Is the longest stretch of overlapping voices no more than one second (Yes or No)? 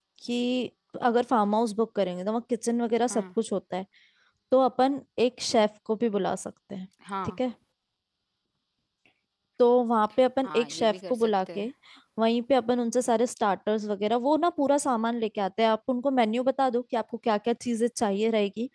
No